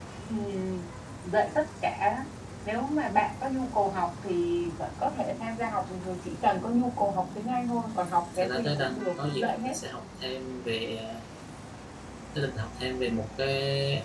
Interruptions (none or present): present